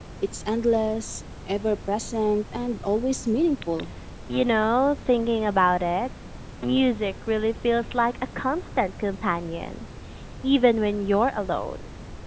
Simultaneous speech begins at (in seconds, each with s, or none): none